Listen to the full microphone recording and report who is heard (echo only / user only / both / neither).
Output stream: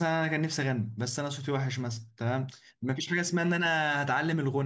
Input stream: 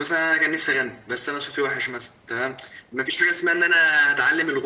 echo only